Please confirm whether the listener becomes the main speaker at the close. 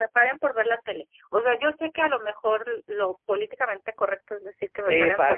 Yes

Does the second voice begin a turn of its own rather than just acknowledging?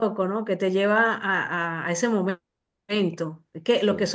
No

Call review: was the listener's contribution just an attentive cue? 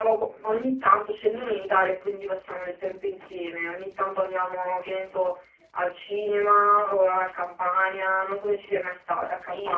No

